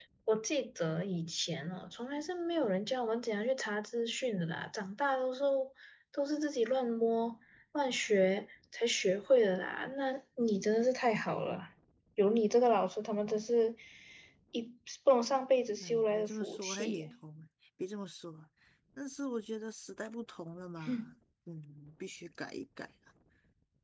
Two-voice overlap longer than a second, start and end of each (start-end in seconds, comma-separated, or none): 15.8-17.1